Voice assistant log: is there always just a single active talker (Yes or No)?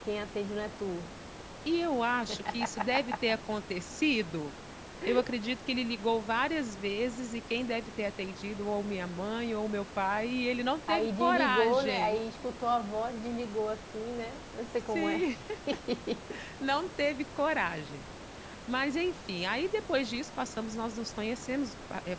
No